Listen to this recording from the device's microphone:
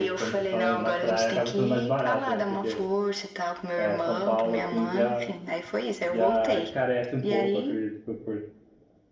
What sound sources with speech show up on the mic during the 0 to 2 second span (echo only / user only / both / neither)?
both